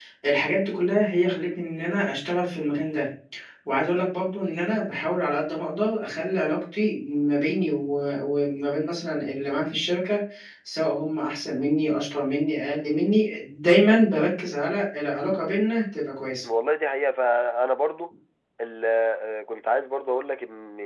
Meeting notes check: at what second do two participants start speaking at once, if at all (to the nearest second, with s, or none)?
none